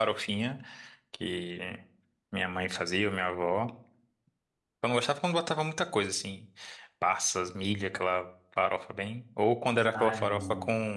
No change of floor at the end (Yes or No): Yes